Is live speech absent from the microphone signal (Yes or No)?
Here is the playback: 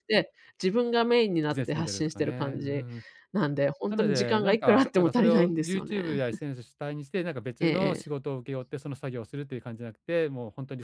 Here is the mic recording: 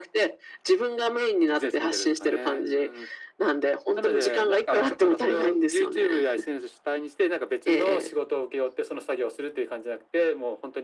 Yes